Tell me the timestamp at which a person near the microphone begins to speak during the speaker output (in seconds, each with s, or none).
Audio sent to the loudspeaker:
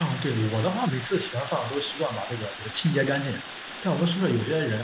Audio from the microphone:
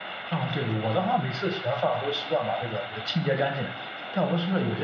none